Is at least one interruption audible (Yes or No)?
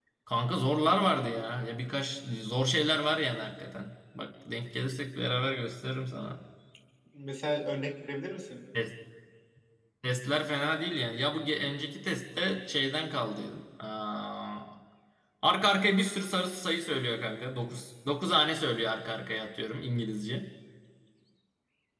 No